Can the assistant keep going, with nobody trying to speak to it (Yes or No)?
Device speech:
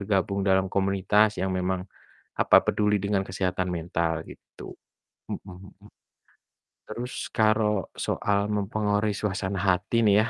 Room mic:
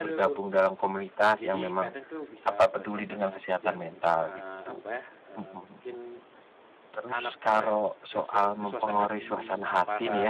No